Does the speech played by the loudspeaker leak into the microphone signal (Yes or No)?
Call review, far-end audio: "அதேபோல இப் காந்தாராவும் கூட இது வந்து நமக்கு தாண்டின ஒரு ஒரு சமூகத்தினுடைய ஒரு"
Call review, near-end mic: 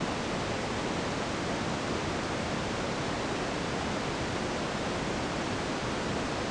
No